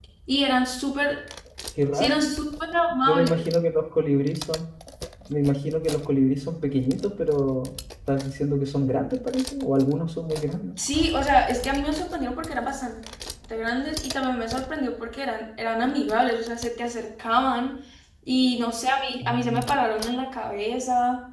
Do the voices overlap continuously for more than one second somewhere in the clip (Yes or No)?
No